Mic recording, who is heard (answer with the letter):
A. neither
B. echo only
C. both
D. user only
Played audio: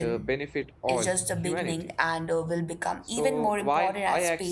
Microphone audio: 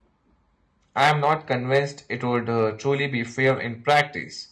D